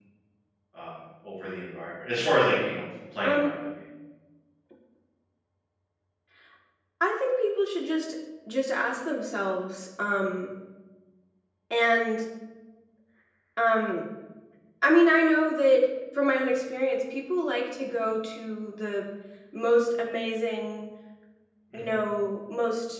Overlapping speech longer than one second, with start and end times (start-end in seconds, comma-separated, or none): none